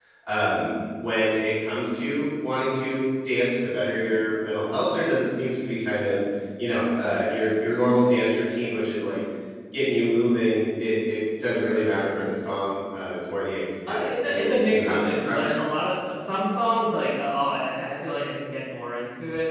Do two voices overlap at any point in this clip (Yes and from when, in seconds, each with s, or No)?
Yes, from 13.9 s